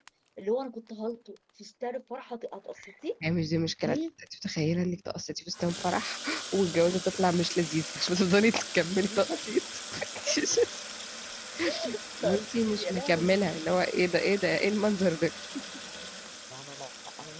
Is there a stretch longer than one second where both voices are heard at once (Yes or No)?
Yes